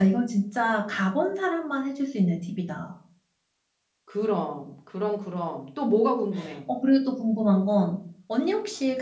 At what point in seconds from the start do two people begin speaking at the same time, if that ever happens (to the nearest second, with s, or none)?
none